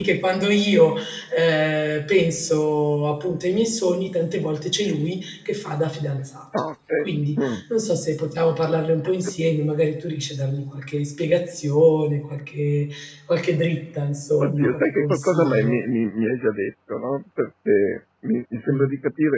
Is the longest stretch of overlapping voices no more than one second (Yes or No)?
No